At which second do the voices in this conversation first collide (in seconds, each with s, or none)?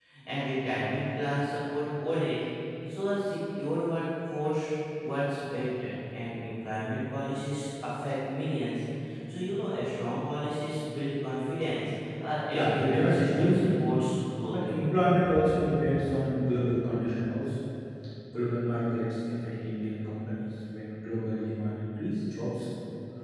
12.5 s